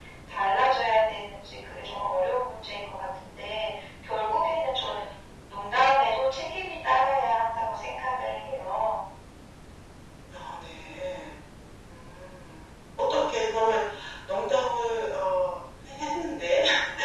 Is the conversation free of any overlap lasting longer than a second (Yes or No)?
Yes